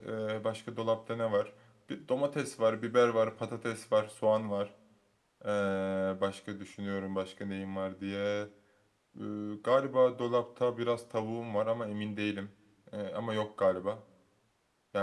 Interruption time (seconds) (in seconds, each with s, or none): none